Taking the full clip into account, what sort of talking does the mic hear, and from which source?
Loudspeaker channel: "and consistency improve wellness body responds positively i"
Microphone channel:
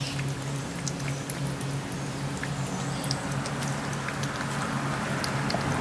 neither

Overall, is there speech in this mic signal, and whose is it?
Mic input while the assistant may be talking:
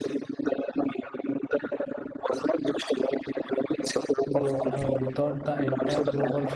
both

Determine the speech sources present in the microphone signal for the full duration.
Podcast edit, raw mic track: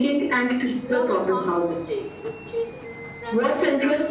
both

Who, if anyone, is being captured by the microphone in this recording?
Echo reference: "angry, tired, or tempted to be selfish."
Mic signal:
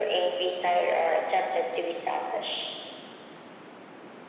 echo only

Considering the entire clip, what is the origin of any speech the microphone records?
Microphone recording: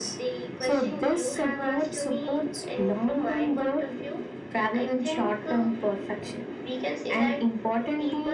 echo only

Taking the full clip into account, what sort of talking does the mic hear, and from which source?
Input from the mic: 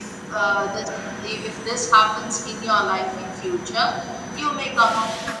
echo only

